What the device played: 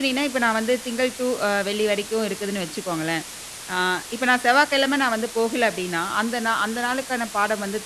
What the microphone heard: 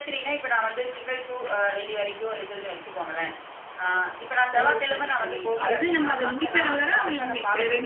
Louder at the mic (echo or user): user